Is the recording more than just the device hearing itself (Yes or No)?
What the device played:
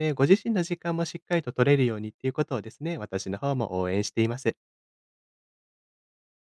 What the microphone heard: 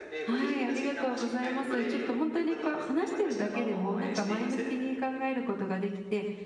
Yes